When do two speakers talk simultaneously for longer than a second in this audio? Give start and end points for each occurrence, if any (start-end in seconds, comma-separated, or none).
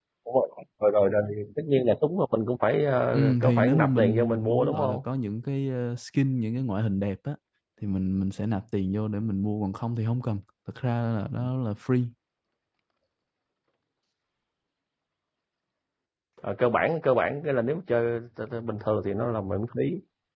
3.1-5.0